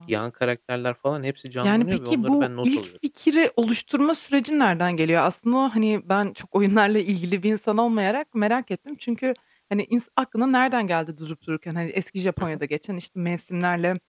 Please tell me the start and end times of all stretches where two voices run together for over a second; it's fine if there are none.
1.6-2.9

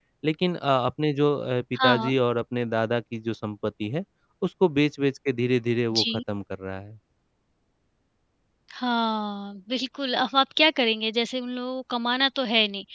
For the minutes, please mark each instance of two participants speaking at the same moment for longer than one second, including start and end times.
none

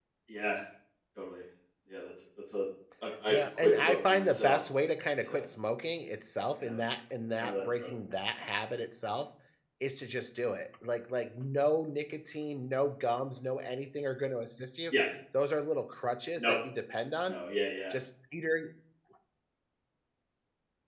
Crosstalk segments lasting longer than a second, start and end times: 3.3-4.6

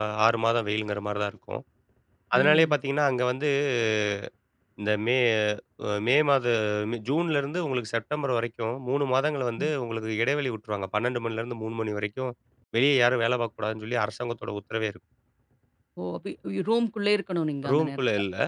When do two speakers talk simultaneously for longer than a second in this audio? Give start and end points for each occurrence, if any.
none

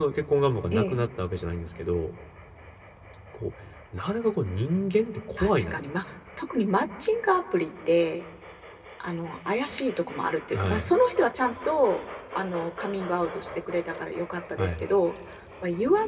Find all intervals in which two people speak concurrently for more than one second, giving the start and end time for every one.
none

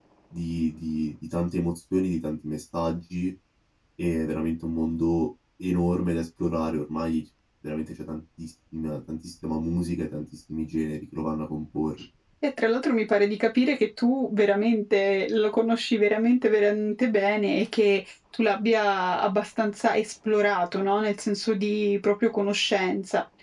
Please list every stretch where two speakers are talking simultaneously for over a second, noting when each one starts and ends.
none

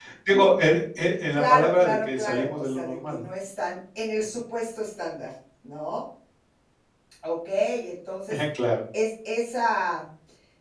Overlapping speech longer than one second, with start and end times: 1.4-3.2

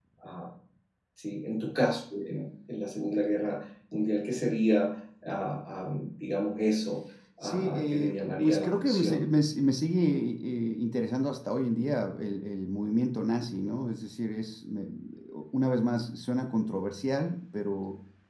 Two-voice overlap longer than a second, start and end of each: 7.4-9.2

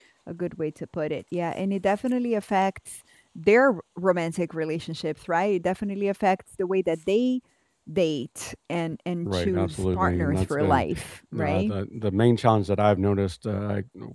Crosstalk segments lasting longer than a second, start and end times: 9.2-10.8

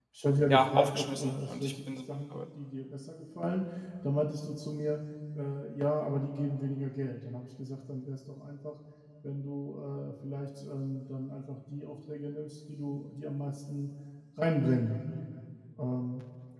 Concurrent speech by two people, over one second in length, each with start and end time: 0.5-1.9

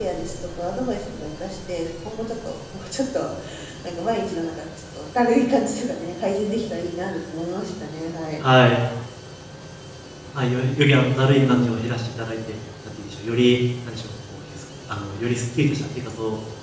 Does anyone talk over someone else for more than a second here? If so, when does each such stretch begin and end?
none

